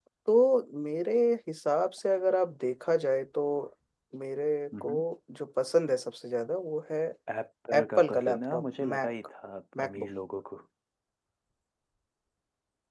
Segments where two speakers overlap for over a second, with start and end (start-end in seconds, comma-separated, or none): 7.7-9.1